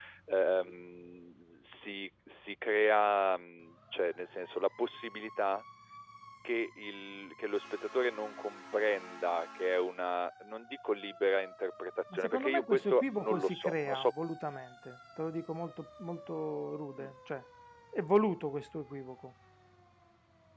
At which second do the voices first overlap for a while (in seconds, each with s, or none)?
12.1 s